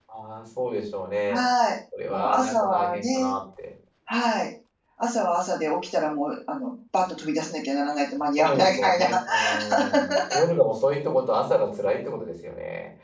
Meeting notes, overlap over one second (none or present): present